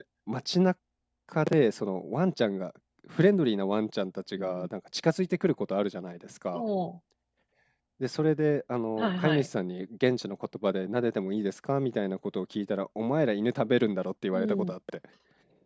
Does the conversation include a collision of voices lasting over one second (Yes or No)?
No